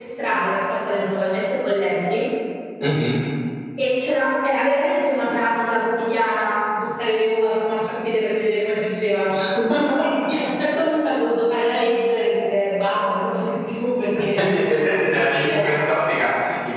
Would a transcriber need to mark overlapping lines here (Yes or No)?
Yes